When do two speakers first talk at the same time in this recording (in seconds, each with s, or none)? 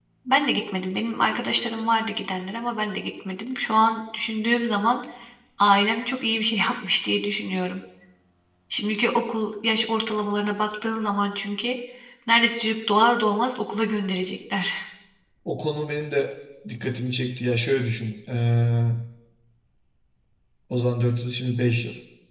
none